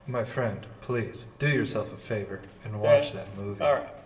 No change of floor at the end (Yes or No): No